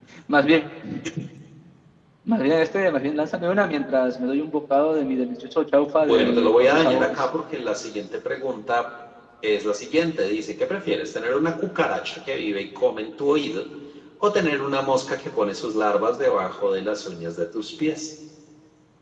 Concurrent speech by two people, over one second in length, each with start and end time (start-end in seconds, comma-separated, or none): 6.0-7.2